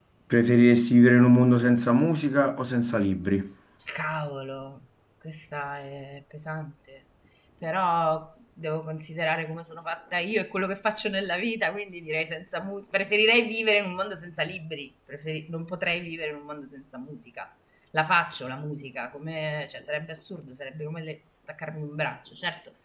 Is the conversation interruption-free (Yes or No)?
Yes